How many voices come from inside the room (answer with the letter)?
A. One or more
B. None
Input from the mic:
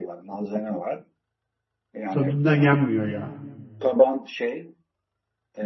A